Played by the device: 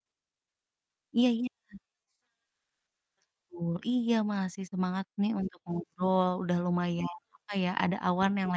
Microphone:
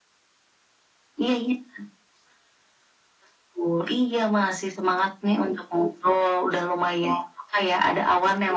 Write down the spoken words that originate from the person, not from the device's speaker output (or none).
none